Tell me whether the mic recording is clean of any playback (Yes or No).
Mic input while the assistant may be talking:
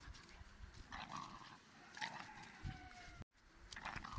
Yes